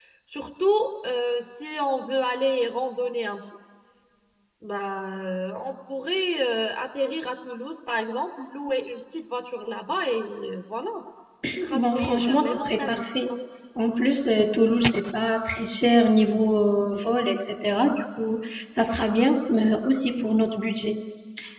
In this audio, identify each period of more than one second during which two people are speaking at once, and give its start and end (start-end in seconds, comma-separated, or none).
11.8-13.3